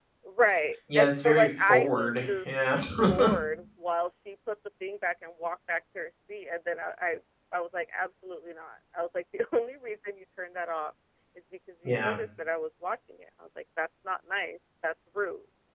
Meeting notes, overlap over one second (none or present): present